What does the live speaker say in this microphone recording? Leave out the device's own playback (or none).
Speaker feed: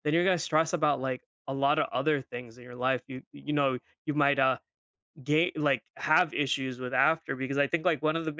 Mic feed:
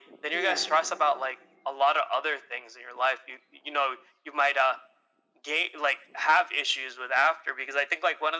Yeah.